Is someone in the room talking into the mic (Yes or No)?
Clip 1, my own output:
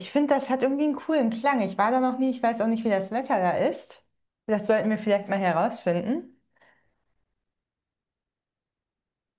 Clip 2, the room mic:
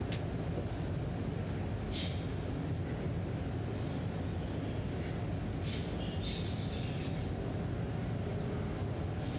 No